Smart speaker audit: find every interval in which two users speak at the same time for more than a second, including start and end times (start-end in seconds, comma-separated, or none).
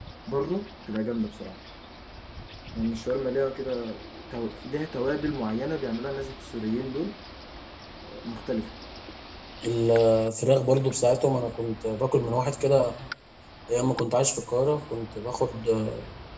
none